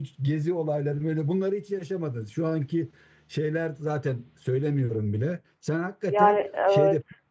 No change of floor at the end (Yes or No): Yes